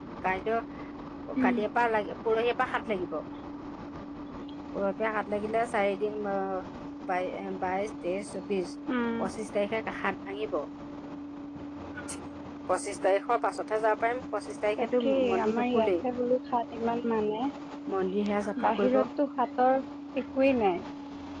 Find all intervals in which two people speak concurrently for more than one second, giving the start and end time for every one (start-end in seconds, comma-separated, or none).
14.8-16.0